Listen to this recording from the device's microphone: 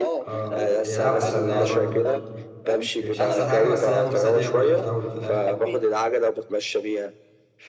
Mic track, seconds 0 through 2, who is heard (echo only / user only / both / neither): both